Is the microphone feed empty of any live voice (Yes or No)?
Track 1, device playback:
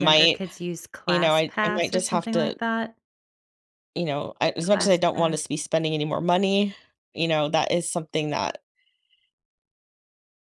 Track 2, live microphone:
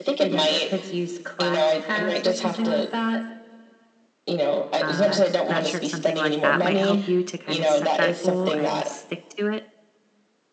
No